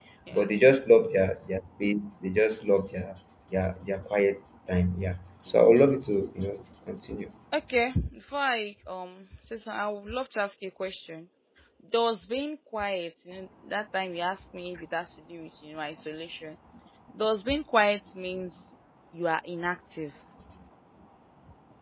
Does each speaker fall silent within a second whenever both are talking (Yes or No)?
Yes